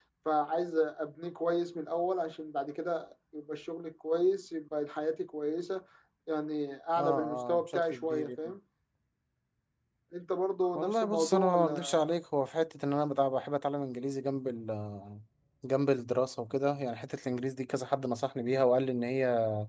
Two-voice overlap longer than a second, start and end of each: 7.0-8.3, 10.8-12.1

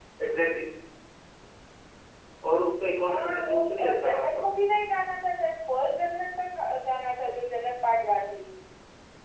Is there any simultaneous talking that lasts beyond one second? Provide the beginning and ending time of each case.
3.0-4.4

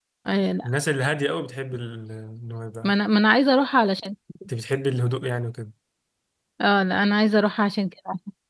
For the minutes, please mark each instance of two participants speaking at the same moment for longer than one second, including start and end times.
none

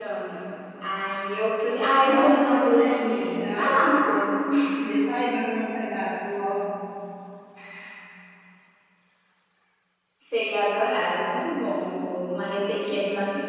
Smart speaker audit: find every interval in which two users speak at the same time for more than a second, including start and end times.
2.0-4.2

